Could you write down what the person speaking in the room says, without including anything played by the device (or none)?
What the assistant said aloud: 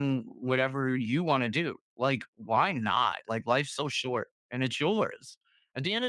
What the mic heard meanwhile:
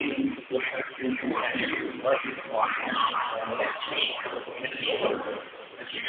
none